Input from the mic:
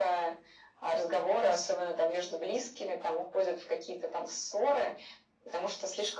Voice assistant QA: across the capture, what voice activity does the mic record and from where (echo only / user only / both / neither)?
echo only